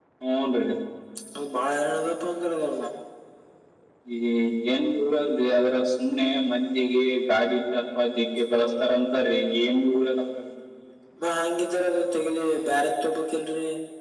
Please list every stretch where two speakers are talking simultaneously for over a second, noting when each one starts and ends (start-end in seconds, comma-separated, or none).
none